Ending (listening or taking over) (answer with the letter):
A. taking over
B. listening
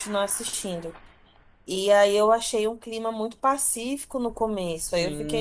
A